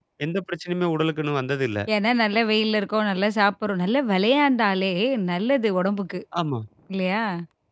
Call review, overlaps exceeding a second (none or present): none